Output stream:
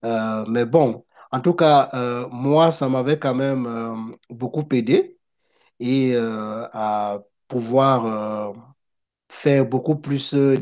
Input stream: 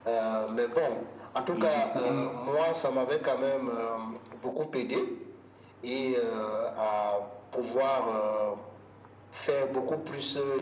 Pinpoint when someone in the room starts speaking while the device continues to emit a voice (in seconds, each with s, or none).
1.5 s